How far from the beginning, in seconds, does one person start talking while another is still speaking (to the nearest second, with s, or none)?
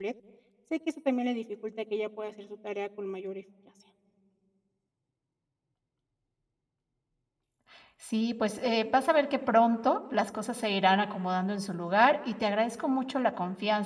none